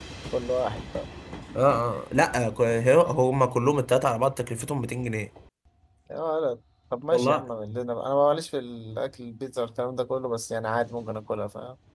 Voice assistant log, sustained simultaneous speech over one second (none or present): none